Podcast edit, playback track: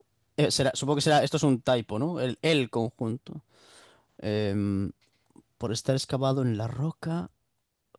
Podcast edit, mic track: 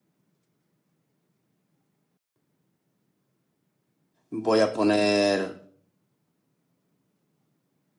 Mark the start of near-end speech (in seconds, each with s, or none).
4.3 s